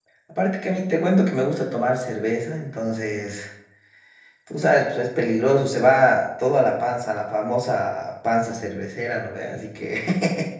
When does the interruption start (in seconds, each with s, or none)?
none